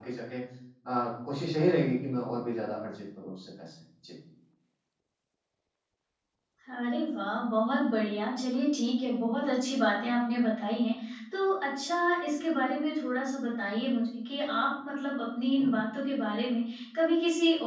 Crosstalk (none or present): none